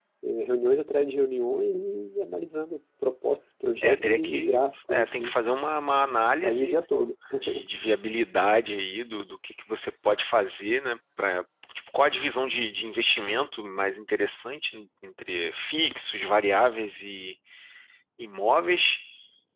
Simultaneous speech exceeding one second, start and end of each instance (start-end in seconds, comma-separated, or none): 3.8-5.3